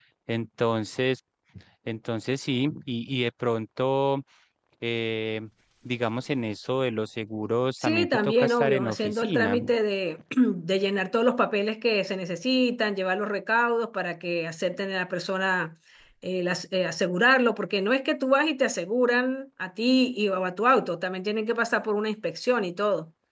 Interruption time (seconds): 7.8 s

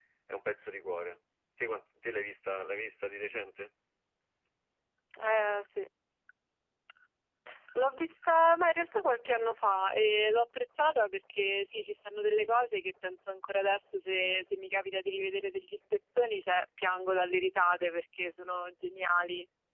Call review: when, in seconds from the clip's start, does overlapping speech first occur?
none

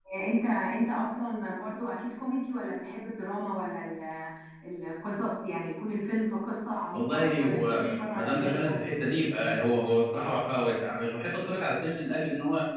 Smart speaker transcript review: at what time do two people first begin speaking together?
6.9 s

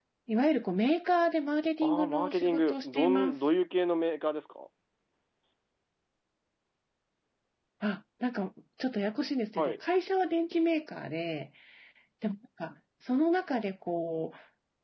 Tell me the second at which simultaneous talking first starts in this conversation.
1.8 s

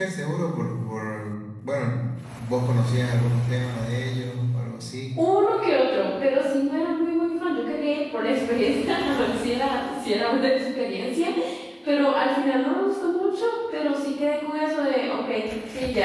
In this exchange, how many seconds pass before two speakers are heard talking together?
none

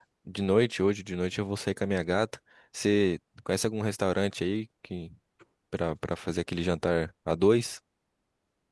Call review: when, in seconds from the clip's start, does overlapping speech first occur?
none

